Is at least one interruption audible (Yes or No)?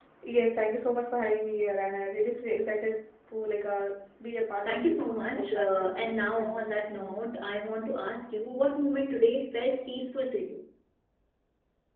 Yes